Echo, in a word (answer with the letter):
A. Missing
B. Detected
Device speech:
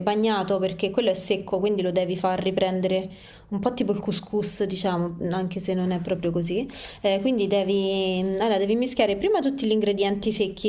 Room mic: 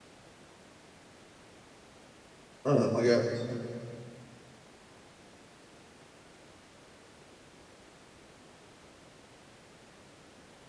A